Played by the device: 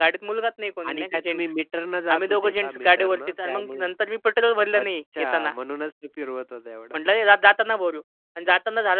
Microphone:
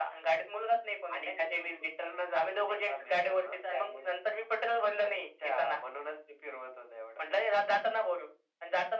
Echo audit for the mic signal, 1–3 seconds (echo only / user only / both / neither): echo only